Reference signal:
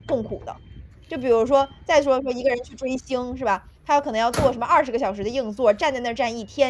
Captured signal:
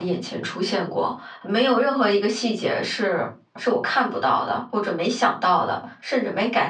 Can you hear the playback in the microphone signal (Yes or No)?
No